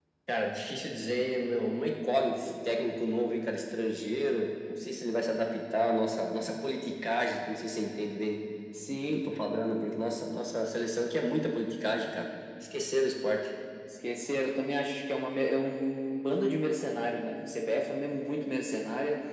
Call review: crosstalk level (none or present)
none